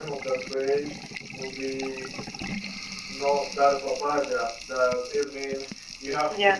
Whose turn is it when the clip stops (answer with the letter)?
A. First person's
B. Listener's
A